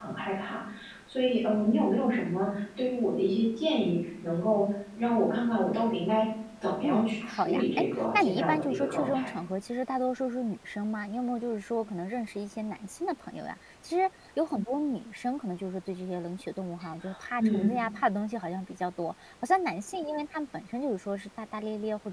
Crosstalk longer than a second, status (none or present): present